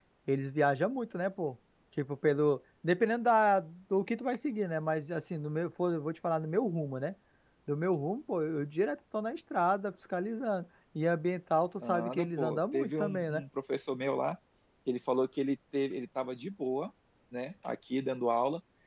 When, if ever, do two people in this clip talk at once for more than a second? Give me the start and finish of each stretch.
11.8-13.4

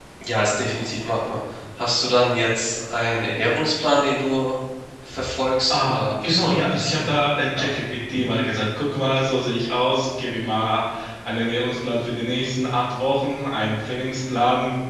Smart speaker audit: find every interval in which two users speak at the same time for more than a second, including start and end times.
5.7-7.1

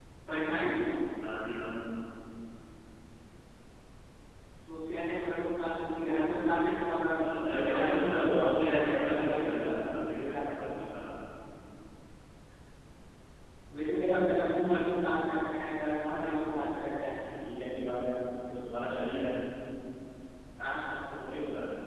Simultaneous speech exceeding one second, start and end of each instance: 7.6-9.6

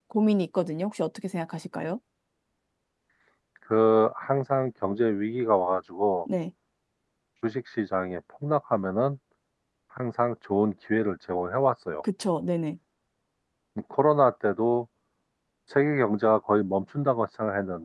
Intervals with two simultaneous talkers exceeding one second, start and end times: none

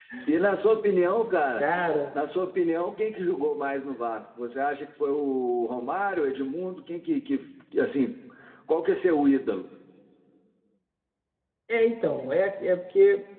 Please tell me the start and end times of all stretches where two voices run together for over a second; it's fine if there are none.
none

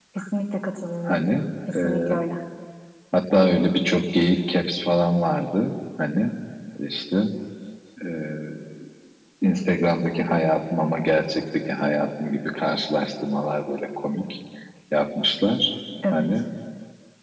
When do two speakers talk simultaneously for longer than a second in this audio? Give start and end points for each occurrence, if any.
none

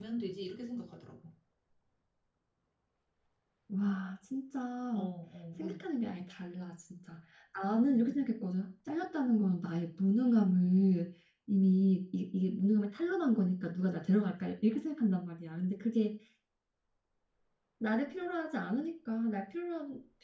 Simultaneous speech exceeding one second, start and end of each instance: none

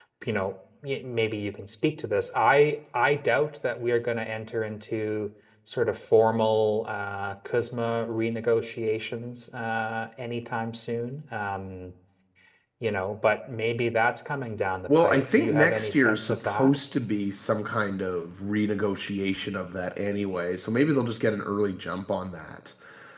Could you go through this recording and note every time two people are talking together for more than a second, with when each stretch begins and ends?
15.0-16.8

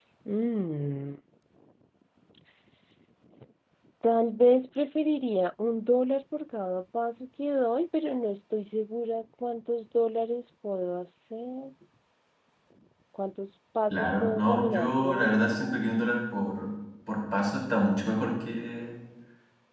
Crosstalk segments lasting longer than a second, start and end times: 13.9-15.6

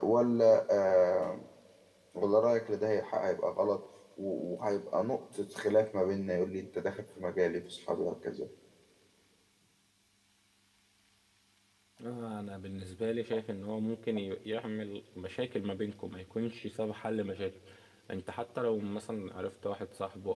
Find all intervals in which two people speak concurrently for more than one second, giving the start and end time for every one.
none

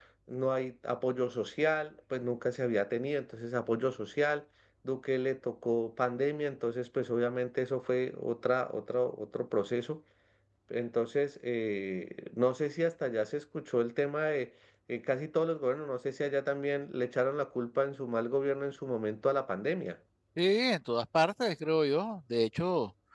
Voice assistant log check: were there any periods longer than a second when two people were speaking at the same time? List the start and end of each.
none

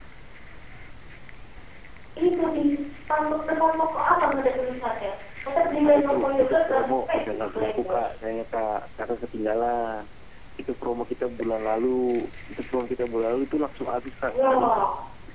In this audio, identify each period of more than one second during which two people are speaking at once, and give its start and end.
5.8-8.1

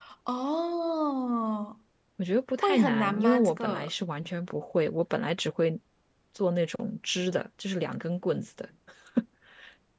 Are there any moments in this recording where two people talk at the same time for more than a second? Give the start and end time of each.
2.6-3.9

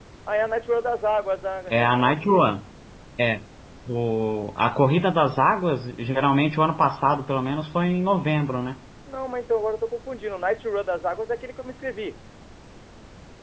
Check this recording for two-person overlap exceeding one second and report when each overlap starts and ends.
none

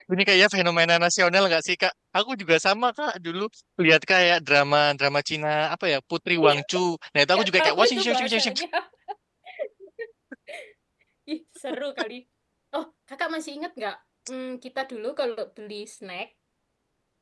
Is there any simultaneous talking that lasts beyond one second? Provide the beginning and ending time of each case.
7.3-8.6

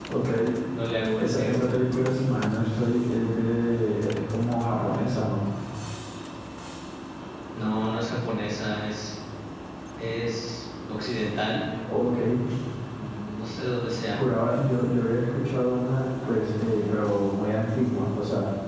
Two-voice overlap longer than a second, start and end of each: none

